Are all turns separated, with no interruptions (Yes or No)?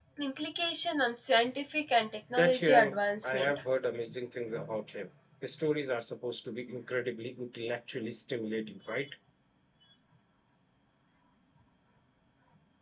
No